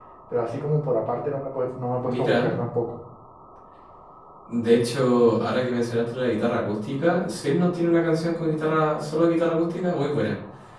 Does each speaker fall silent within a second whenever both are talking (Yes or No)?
Yes